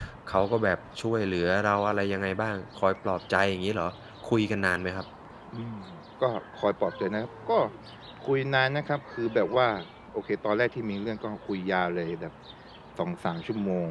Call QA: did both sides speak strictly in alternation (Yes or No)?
Yes